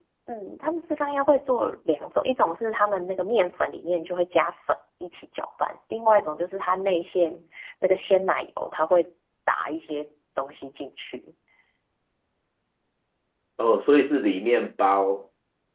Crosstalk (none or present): none